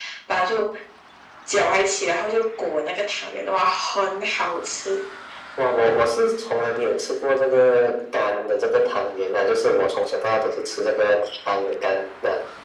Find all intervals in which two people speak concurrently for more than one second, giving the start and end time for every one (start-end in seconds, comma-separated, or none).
none